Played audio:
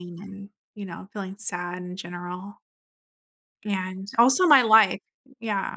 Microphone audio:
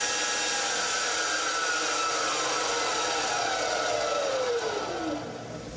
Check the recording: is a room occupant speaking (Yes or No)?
No